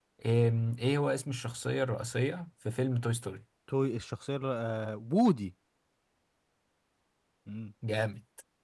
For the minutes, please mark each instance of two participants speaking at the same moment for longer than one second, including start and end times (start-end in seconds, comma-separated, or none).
none